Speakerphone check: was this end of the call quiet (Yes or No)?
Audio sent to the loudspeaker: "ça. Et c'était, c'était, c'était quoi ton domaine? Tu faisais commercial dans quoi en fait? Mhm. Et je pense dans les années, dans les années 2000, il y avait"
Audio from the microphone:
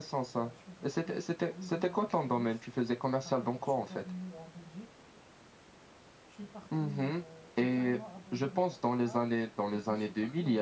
No